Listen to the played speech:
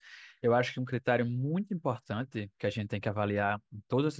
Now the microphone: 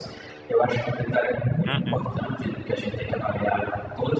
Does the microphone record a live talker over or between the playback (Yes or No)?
Yes